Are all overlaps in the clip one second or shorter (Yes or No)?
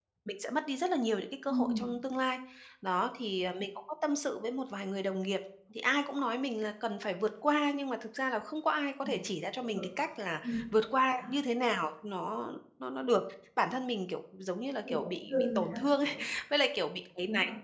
No